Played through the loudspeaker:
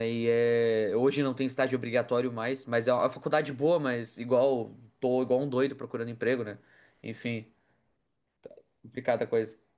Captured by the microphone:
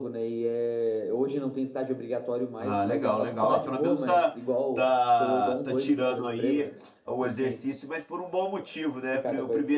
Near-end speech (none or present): present